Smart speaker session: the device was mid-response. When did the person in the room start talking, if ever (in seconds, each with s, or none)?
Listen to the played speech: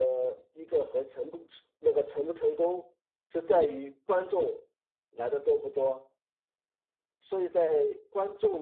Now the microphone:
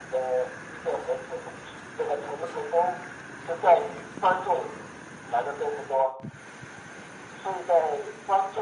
none